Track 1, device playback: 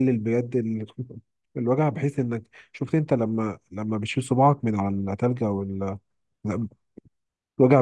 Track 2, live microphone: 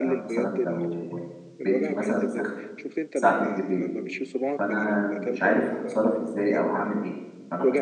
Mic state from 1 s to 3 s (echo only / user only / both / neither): both